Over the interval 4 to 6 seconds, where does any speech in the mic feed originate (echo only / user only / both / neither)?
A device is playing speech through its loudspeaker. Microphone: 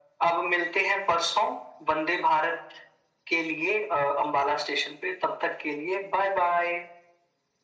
echo only